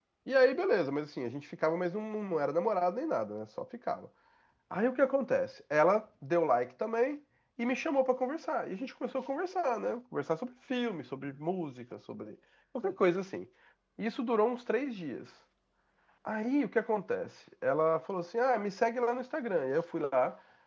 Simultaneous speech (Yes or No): No